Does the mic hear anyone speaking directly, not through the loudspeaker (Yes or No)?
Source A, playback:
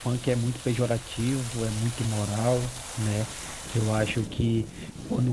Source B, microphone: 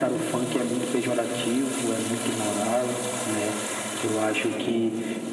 No